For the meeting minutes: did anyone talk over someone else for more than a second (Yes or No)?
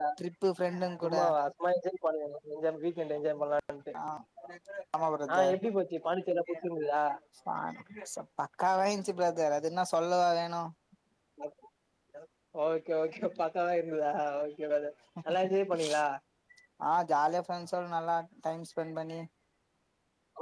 No